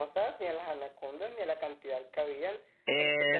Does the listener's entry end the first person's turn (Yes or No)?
No